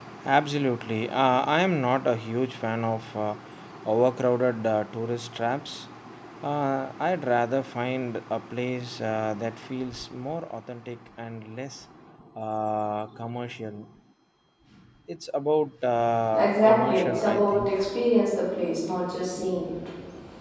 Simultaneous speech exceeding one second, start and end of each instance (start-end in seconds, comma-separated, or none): 16.3-17.7